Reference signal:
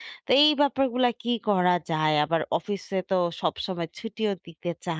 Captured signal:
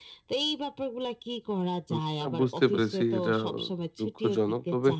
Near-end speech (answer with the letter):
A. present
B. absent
A